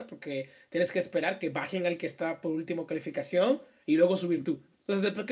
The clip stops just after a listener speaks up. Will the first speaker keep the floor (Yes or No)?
Yes